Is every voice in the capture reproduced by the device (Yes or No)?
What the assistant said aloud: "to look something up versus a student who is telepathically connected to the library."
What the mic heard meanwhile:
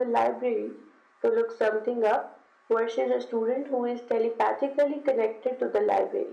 Yes